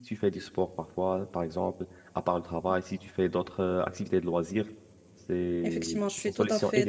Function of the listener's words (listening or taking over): taking over